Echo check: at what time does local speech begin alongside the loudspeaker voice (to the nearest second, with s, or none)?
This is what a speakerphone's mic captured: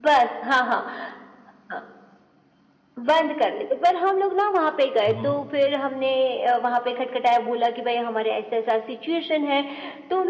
5 s